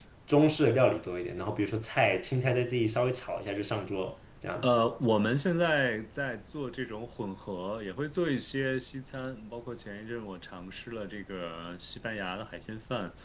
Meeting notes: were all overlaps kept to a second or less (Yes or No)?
Yes